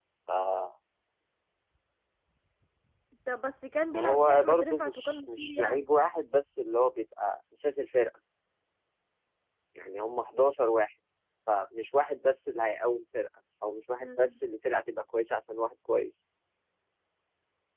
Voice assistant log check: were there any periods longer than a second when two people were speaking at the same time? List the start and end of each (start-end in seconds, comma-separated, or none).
3.9-5.8